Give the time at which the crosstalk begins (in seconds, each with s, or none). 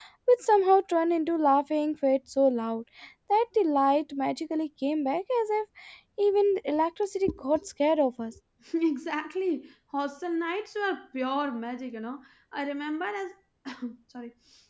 none